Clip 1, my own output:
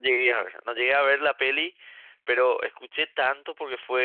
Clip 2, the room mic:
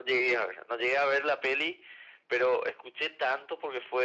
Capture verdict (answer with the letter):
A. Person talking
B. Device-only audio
B